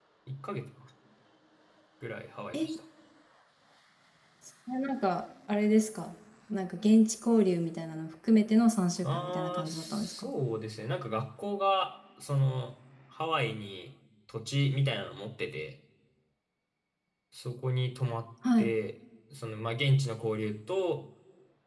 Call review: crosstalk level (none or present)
present